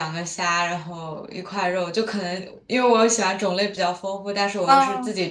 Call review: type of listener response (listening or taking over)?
listening